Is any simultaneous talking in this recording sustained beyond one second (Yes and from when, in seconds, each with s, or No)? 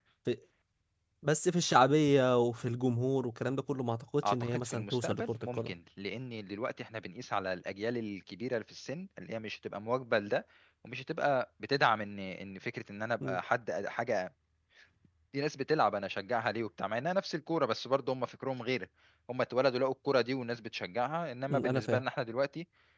Yes, from 4.2 s